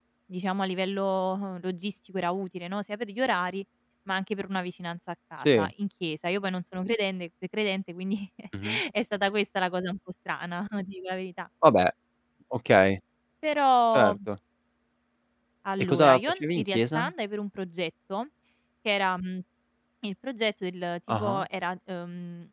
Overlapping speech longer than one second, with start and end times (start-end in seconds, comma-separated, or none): 15.8-17.0